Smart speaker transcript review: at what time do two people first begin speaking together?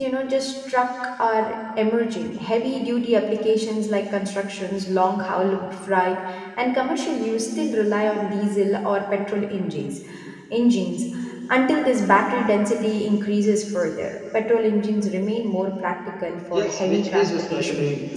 16.5 s

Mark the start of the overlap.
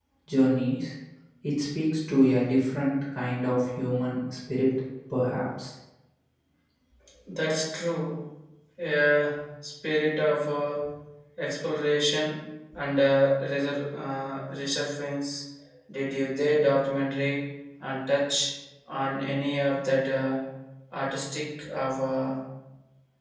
none

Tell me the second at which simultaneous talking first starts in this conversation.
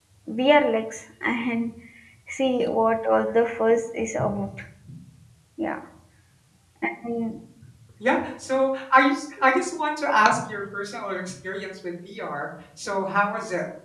none

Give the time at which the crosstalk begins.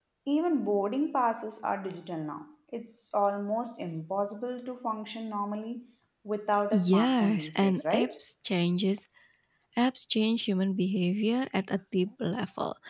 6.7 s

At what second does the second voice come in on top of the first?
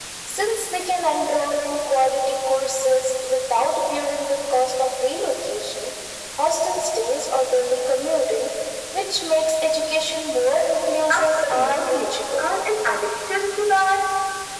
11.1 s

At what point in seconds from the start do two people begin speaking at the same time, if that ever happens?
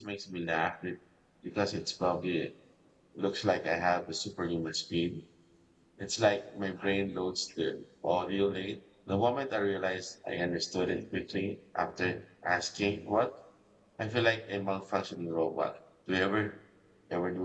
none

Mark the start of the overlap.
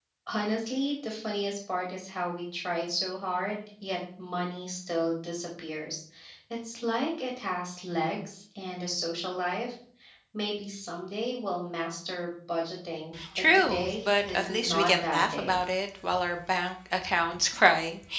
13.2 s

